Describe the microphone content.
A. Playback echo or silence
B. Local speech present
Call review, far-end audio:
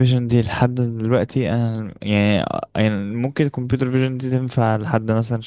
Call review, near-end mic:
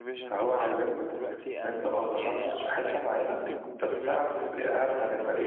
B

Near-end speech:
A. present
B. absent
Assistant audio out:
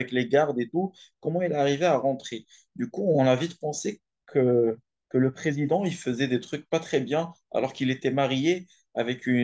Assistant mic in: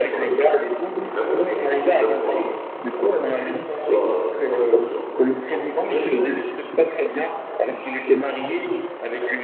A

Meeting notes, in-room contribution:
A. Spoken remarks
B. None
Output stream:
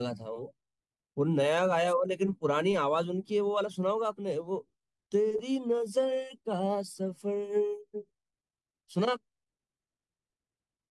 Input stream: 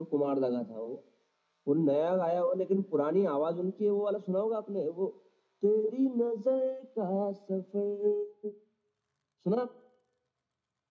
B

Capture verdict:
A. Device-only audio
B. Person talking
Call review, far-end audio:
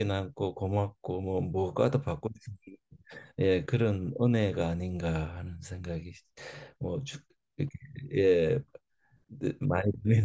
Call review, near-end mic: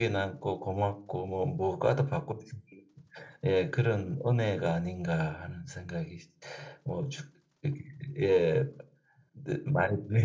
A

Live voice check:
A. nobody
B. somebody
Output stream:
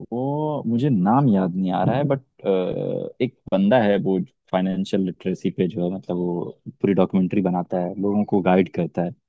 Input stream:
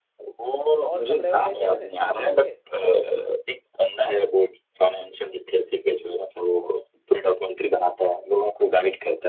B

